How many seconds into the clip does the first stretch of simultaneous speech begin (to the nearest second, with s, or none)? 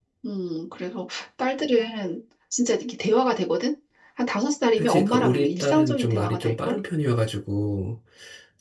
5 s